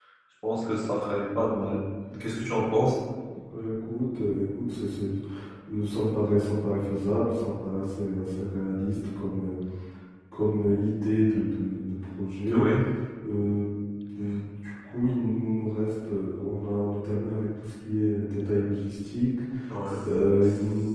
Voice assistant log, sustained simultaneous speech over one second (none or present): none